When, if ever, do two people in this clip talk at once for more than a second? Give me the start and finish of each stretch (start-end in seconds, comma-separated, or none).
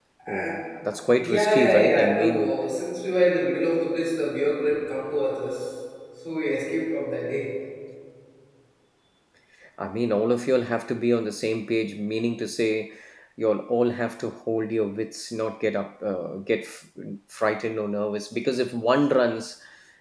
1.2-2.5